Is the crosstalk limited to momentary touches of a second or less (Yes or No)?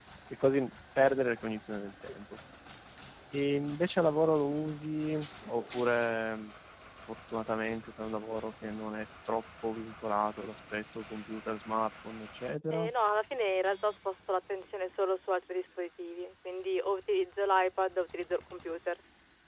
Yes